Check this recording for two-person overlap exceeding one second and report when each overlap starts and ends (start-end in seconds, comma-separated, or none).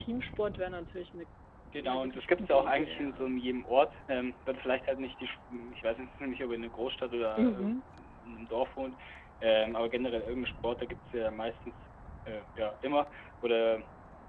1.8-3.3